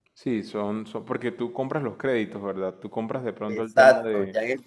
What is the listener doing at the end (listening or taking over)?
taking over